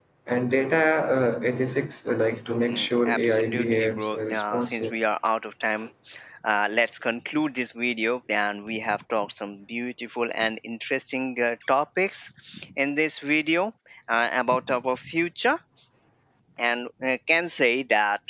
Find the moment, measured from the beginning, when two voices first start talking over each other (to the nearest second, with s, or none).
3 s